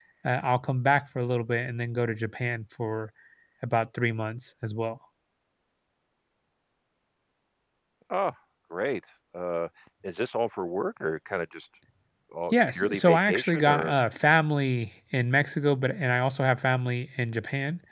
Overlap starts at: 12.5 s

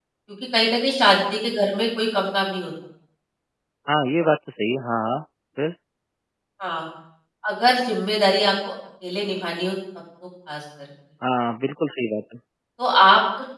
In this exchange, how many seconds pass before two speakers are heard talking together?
none

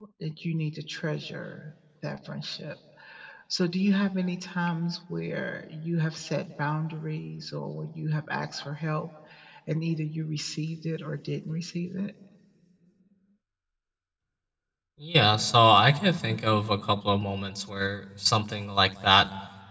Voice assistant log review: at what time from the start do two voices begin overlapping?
none

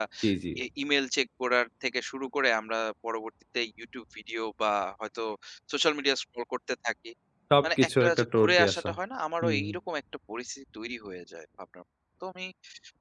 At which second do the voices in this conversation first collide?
7.6 s

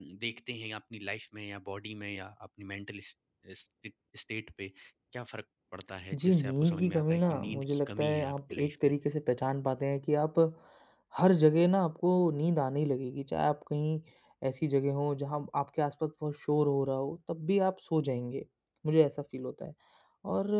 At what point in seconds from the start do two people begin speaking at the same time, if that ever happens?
6.1 s

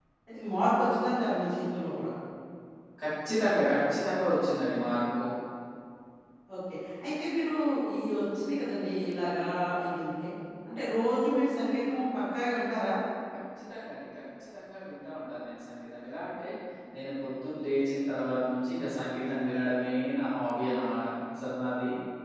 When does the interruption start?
none

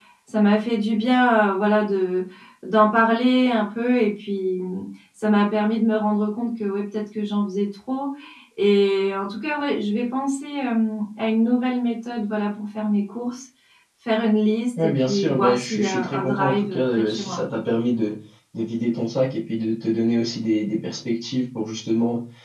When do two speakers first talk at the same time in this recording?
14.8 s

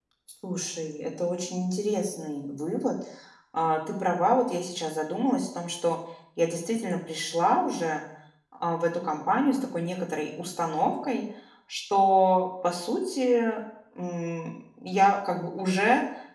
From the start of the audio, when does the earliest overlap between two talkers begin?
none

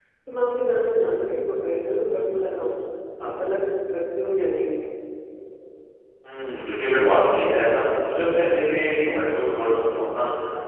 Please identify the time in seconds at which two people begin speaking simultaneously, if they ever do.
none

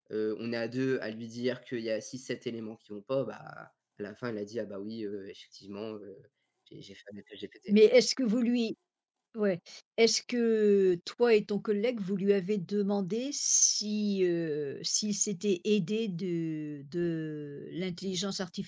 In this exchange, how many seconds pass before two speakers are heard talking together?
none

